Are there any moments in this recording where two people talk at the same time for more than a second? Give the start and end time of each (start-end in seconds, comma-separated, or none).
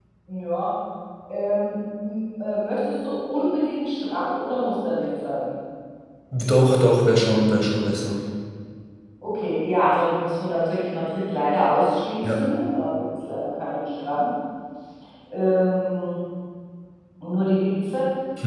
none